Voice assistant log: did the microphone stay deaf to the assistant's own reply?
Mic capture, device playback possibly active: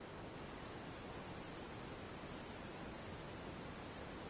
Yes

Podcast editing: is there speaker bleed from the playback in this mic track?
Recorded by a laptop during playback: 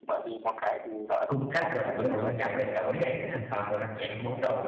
Yes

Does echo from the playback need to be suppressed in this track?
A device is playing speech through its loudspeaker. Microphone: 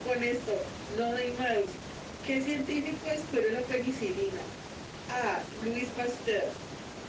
Yes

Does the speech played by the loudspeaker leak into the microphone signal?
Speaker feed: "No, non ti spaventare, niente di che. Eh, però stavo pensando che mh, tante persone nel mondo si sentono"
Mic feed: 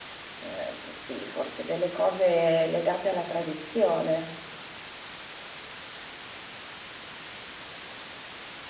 No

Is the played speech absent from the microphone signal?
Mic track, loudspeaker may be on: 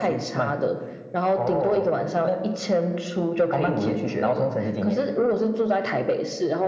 No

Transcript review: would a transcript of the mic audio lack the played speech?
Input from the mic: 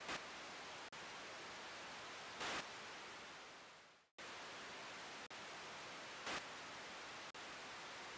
Yes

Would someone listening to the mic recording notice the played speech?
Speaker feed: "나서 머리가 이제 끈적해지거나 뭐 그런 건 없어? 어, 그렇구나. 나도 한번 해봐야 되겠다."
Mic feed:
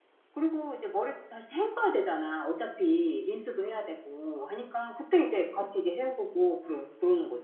No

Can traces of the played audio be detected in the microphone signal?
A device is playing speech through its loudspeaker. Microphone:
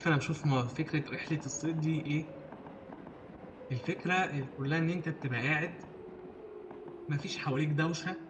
No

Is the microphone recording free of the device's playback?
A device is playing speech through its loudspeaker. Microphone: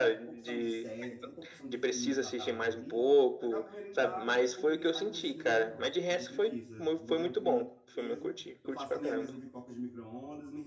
No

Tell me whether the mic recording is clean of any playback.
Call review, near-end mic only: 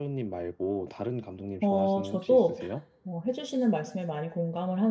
No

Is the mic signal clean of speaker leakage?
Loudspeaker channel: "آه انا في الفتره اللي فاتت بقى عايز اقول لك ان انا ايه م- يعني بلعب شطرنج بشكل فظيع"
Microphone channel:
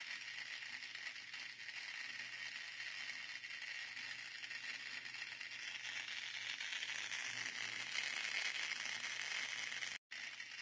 Yes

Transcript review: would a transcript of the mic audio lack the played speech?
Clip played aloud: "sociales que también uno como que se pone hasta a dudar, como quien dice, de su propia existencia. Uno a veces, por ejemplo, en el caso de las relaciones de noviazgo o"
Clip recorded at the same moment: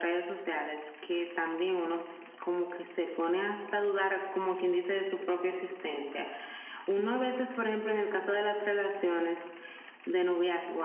No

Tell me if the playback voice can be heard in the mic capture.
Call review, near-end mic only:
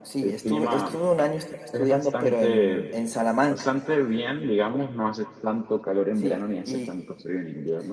Yes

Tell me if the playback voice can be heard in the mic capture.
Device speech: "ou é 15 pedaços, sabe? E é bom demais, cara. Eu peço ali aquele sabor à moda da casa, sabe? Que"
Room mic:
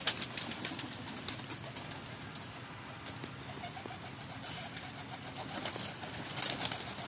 No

